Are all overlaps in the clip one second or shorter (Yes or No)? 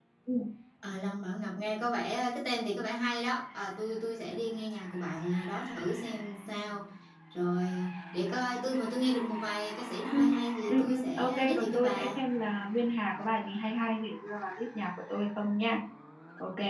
No